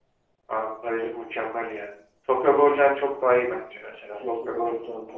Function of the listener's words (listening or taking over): taking over